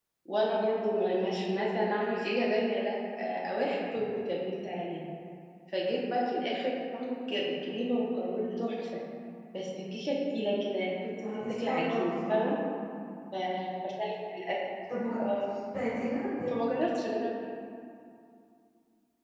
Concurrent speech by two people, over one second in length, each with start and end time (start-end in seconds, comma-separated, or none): 11.2-12.6